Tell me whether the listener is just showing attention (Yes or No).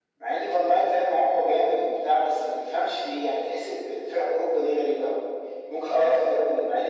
Yes